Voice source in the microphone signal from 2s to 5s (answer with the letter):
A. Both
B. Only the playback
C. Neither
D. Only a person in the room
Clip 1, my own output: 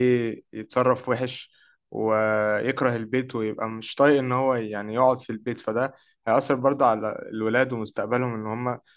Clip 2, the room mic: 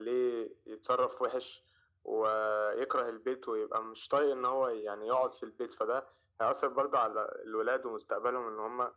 B